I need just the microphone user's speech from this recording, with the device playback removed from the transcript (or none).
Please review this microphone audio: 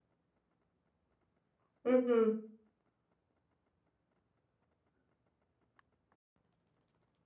Mhm.